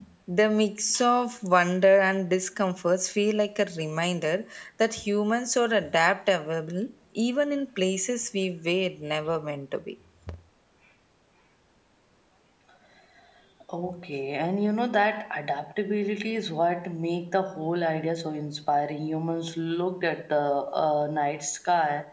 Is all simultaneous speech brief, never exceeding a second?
Yes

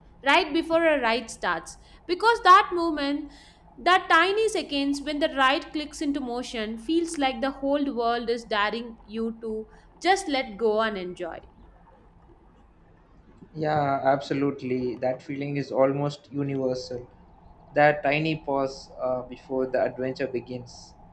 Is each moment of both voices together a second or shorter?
Yes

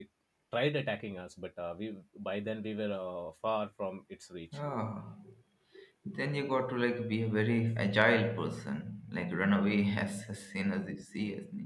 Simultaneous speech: No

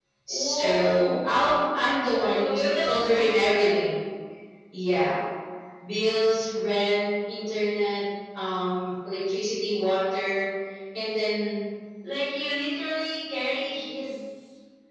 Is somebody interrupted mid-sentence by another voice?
Yes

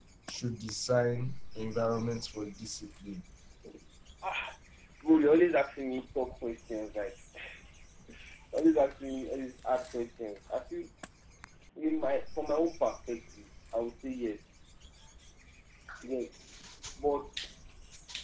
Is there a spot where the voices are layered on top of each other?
No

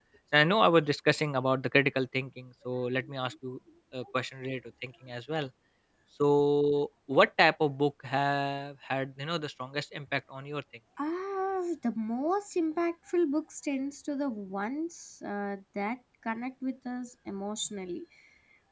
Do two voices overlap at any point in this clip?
No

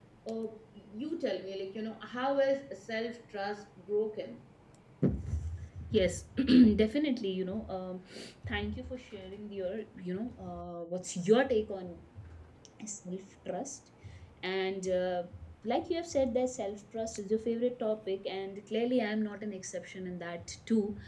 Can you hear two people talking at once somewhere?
No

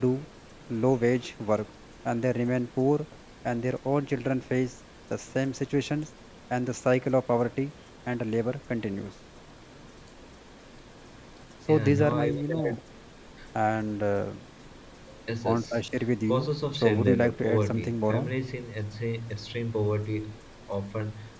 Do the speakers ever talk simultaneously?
Yes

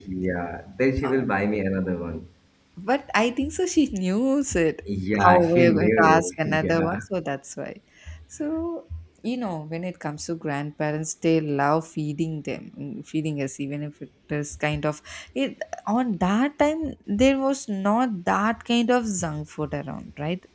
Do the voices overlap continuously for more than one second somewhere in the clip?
Yes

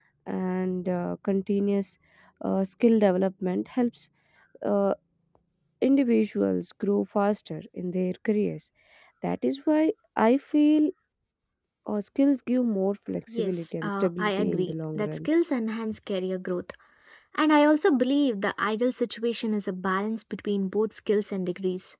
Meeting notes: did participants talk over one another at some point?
Yes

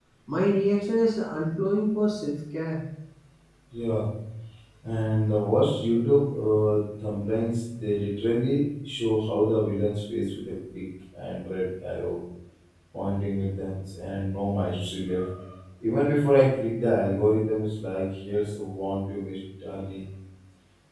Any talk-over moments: No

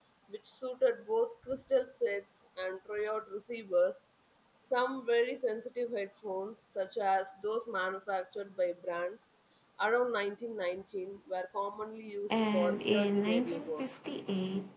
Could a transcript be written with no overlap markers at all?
No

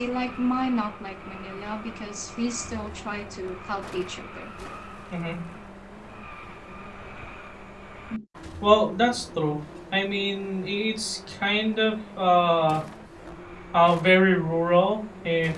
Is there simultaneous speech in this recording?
No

